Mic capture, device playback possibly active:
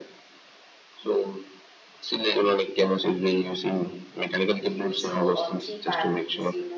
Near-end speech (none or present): present